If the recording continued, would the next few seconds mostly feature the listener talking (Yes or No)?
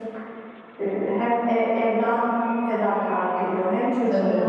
No